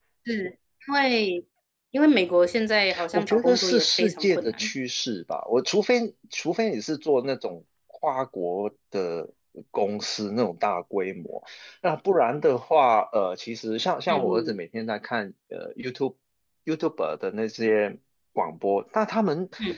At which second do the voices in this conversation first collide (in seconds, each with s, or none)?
3.1 s